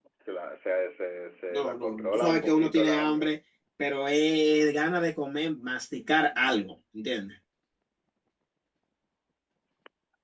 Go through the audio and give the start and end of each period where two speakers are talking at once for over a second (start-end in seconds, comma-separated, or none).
1.5-3.3